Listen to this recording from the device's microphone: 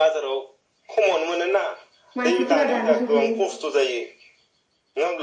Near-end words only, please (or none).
मानसिफोरा दानि जुगनि